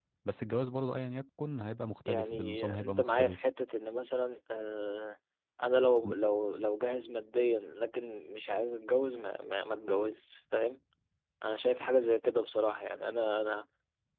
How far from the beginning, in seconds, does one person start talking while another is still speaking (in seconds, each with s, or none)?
2.0 s